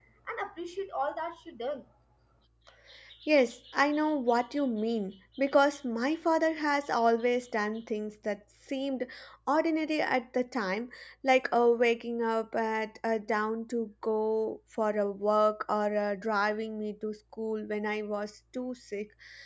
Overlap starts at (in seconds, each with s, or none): none